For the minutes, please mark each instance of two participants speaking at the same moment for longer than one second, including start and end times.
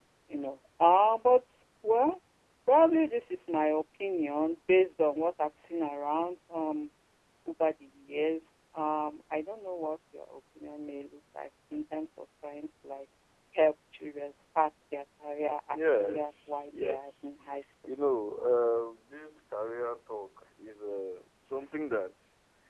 15.7-17.3

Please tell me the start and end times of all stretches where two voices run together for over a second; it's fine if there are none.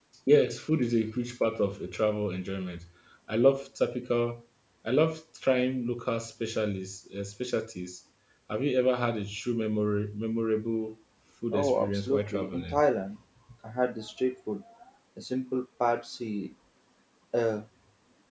11.5-12.8

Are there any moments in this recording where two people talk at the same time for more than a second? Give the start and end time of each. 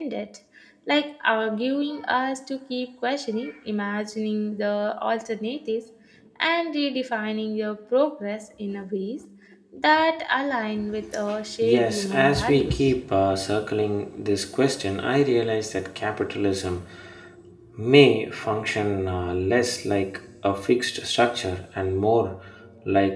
11.6-12.9

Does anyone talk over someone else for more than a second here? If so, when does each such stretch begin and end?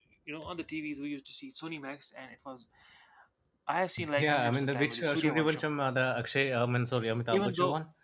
4.2-5.6

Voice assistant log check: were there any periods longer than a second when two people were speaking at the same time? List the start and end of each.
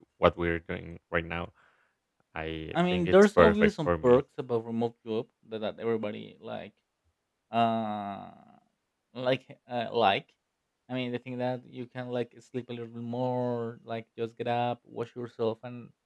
2.7-4.2

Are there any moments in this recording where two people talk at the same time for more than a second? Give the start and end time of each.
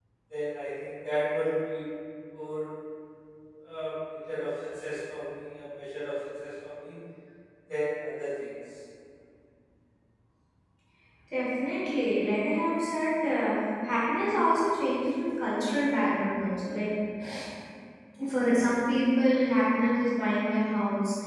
none

